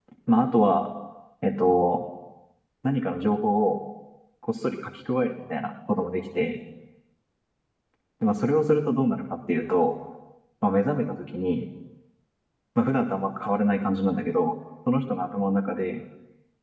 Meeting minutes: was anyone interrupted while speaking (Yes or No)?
No